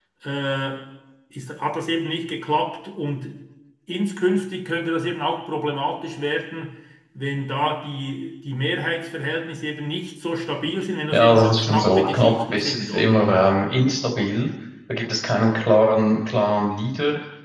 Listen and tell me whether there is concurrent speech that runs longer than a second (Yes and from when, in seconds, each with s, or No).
Yes, from 11.1 s